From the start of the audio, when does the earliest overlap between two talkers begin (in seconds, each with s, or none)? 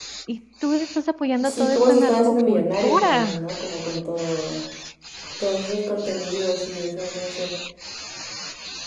1.4 s